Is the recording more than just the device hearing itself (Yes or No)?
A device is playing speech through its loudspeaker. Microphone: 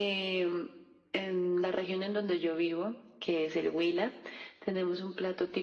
No